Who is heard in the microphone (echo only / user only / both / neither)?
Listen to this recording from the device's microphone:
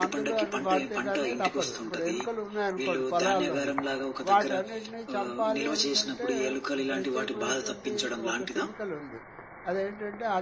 both